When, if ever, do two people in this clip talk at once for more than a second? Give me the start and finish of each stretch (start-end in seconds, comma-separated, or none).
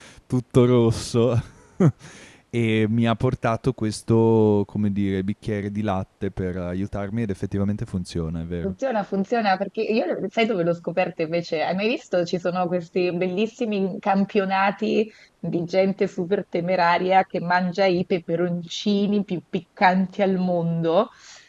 none